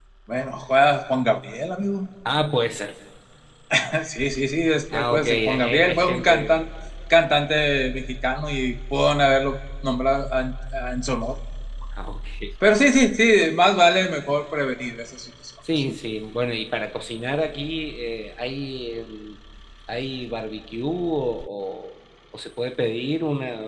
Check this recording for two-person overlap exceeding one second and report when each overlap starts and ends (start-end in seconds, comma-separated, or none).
4.9-6.6